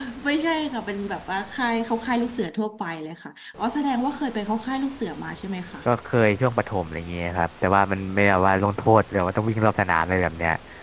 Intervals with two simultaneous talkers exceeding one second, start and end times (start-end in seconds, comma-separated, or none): none